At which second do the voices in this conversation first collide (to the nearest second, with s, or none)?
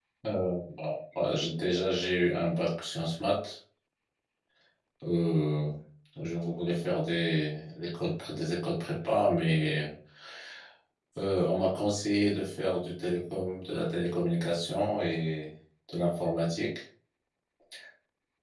none